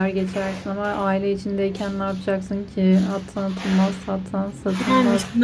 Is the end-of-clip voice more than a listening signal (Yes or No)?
Yes